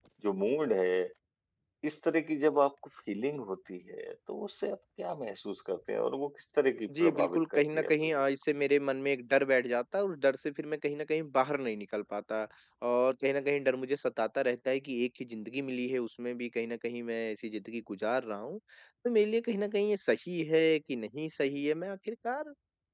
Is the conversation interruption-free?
No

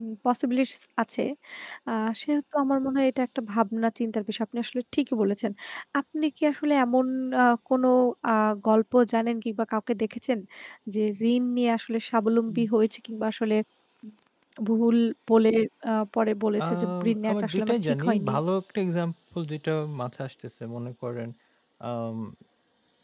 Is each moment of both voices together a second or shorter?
No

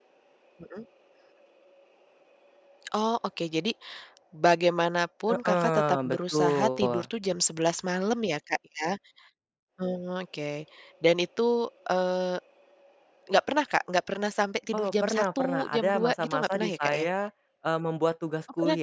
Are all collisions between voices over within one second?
No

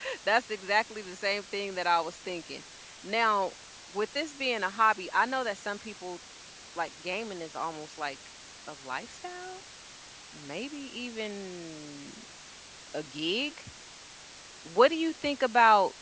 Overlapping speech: No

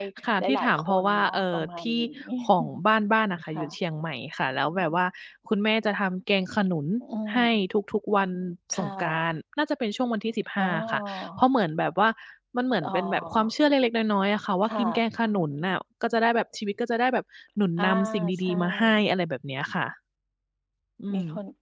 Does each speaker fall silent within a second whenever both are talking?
No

